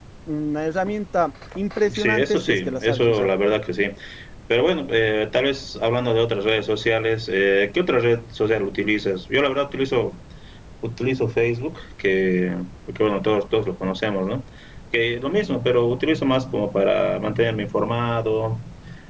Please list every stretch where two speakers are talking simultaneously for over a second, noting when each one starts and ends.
1.9-3.3

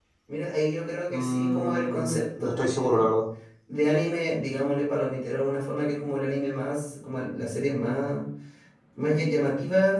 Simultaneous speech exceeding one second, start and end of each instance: 1.1-3.1

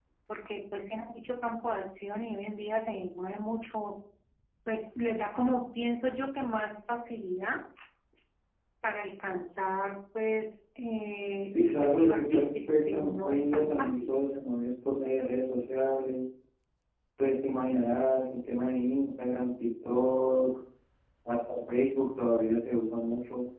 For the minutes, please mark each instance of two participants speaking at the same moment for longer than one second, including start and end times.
11.5-14.1

